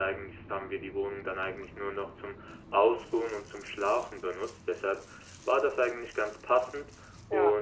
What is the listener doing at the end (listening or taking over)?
listening